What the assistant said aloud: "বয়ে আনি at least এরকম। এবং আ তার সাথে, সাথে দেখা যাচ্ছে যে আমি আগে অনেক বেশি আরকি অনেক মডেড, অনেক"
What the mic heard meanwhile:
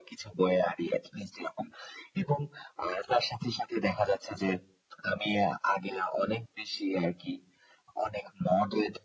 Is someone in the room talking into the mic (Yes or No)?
No